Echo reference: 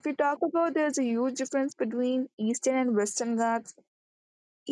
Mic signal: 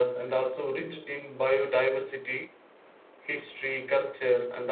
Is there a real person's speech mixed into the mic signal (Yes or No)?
Yes